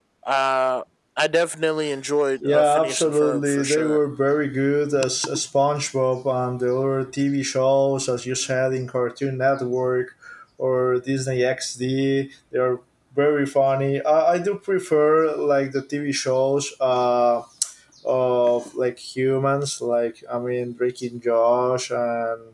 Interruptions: present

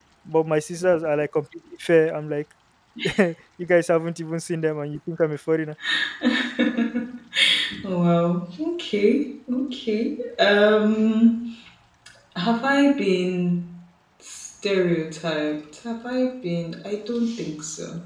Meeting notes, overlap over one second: none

